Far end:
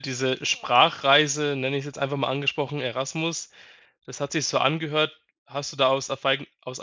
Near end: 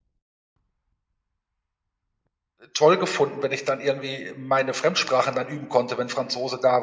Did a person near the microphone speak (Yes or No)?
Yes